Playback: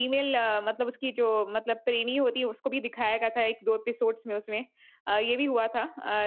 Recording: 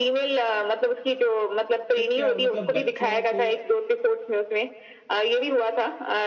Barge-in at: 1.9 s

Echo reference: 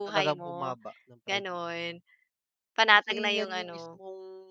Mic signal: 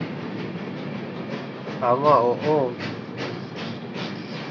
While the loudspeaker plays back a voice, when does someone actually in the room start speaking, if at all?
1.8 s

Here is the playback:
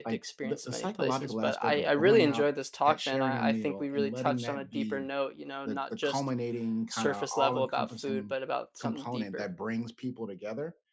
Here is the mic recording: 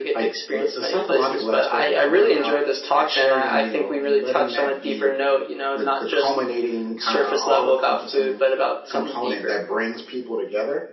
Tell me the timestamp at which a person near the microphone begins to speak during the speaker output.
none

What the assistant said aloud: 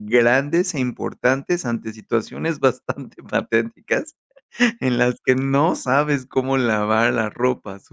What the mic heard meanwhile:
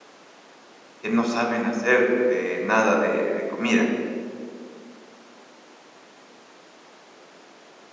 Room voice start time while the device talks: 1.0 s

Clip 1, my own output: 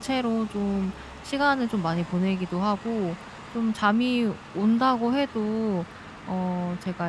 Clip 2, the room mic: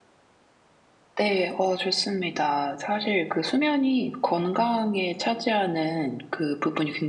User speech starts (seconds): 1.1 s

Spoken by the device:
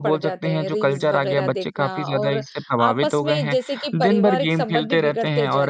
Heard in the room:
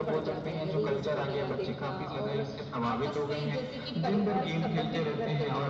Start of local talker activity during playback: none

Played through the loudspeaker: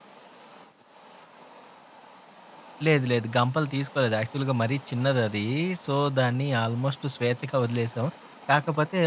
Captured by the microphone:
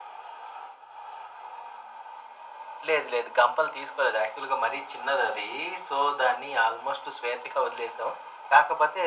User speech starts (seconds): none

